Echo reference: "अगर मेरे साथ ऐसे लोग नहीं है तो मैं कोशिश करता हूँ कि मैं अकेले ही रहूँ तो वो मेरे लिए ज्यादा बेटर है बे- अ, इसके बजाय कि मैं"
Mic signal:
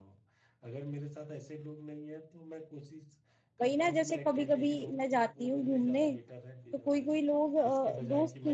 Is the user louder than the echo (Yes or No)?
Yes